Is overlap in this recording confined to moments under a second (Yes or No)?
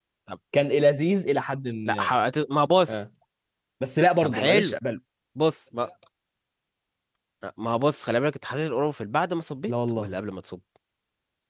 Yes